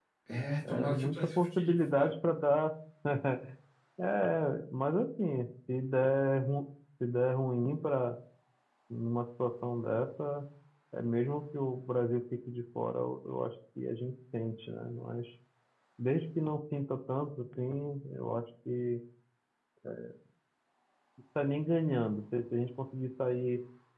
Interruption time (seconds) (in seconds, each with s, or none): 0.7 s